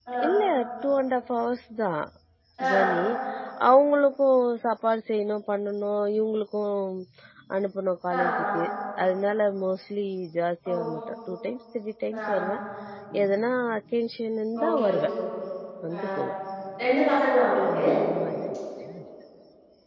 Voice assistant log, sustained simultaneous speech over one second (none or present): none